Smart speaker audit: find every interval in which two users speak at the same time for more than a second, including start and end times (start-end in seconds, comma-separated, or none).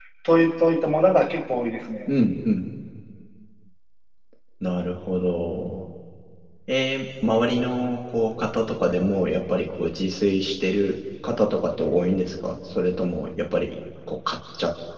none